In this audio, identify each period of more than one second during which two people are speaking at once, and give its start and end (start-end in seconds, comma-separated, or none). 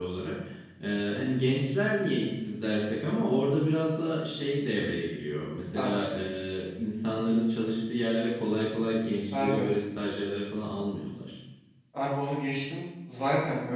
none